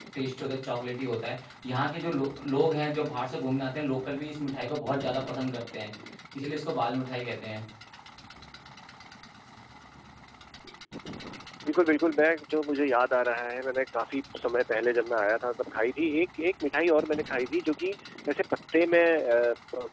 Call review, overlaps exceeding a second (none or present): none